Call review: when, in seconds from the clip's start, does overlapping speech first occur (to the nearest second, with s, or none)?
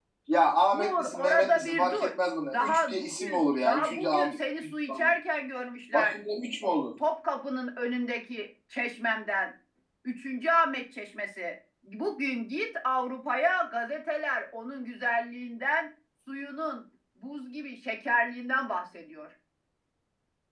1 s